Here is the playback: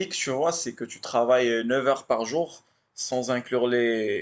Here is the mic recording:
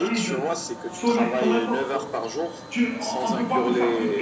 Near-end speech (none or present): present